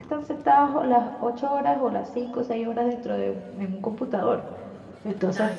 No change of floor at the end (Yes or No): Yes